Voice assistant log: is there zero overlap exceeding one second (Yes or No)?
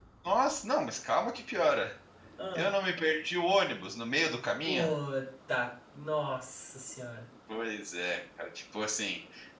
Yes